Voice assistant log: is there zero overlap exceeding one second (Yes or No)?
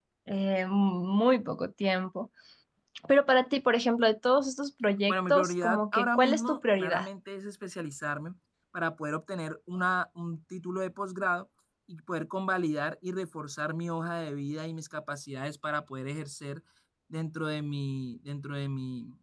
No